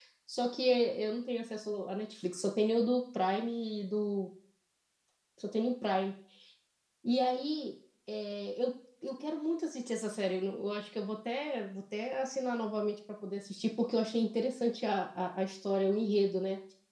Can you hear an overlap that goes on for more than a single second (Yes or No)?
No